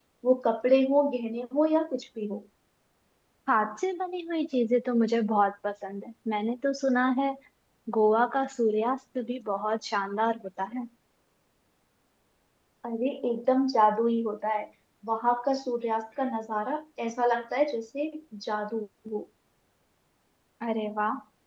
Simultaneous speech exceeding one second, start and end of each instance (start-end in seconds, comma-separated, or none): none